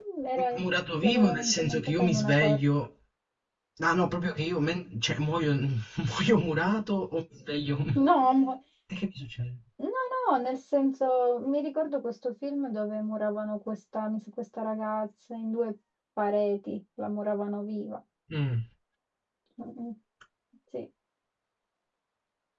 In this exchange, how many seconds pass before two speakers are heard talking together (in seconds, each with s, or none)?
1.0 s